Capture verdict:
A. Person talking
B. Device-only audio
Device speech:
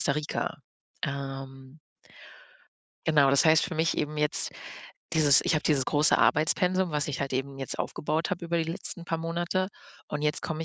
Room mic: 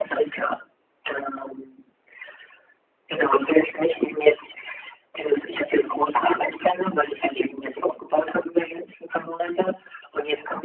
B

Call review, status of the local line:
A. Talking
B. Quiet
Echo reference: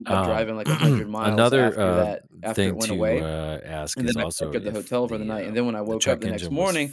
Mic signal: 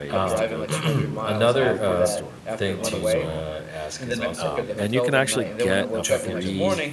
A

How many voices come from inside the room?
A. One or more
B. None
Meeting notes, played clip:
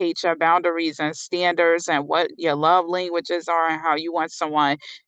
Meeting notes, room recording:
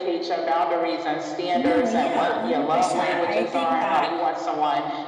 A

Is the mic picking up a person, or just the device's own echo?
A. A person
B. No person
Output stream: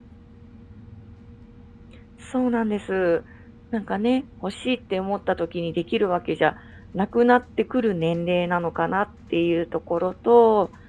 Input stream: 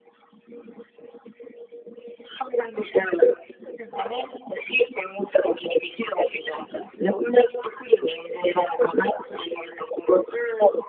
B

